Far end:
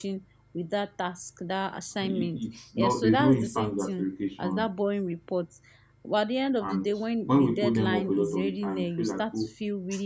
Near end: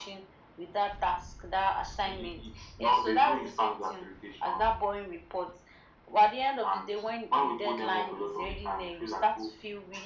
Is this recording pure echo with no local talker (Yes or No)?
Yes